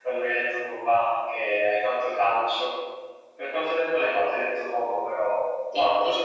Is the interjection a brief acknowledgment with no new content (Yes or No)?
No